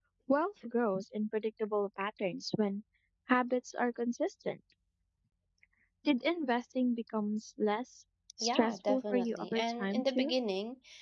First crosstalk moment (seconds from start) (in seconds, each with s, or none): 8.4 s